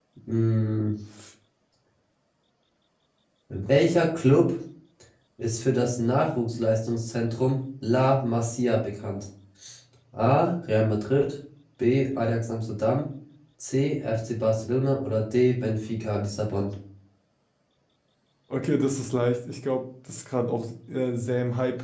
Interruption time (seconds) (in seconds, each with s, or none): none